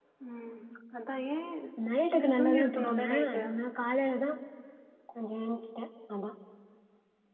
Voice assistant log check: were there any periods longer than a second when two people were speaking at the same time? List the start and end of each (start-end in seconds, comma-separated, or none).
2.2-3.4